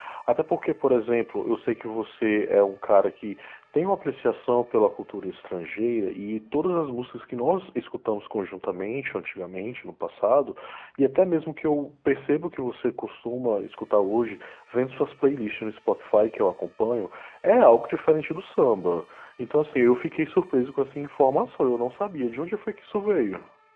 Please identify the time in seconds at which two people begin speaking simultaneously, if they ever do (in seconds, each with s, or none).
none